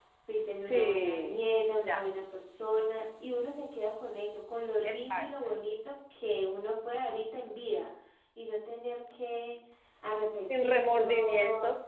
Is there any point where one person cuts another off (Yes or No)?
Yes